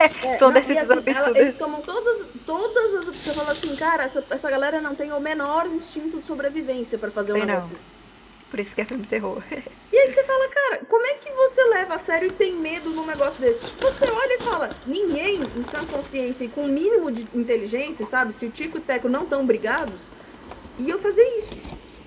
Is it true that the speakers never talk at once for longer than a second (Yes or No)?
No